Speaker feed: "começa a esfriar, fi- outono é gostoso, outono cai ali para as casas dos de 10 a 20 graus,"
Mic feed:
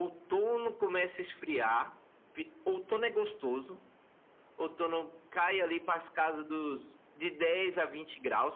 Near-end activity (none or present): none